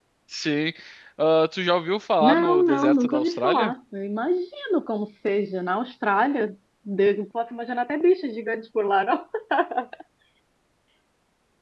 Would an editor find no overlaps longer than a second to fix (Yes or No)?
No